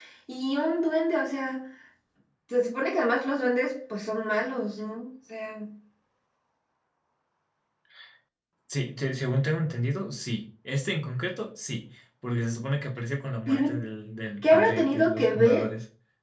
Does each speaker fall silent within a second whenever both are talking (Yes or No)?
No